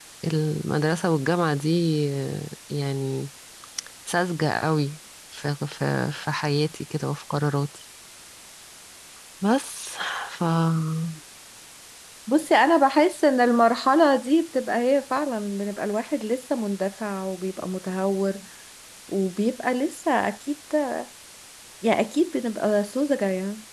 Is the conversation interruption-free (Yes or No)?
Yes